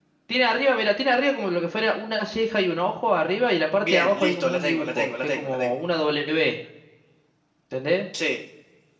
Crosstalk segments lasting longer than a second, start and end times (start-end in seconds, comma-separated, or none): 3.8-5.7